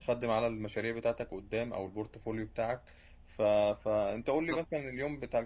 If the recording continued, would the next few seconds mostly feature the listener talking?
No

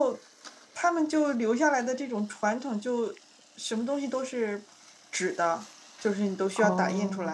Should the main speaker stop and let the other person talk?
No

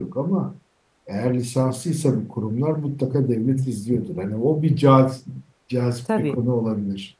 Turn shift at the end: No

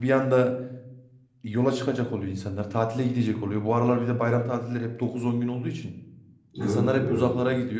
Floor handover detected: No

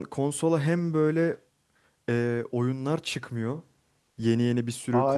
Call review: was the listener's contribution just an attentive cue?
No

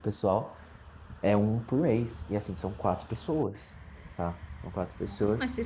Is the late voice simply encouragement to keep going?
No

